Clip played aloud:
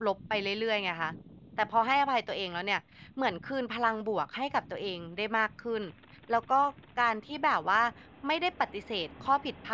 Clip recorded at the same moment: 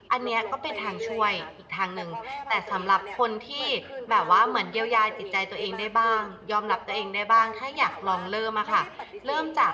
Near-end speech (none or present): present